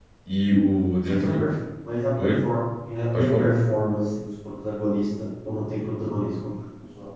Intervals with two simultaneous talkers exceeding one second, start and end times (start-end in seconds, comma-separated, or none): none